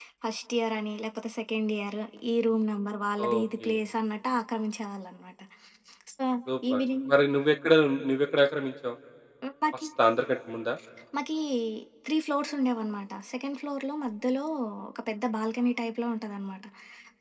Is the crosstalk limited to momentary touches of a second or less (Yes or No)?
Yes